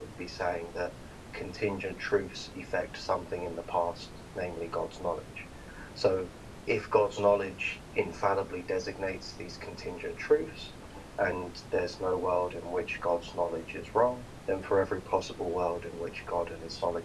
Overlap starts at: none

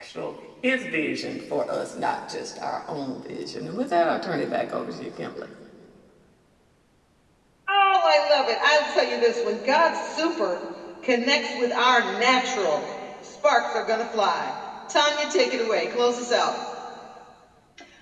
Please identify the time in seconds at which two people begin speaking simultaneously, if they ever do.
none

